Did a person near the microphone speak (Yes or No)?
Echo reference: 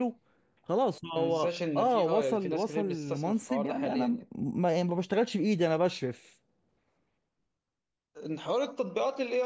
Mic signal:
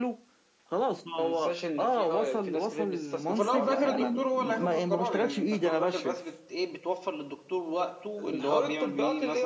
Yes